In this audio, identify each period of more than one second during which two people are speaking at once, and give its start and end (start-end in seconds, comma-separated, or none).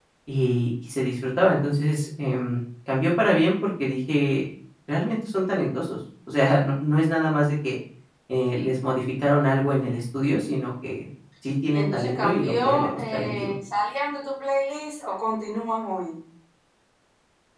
11.7-13.5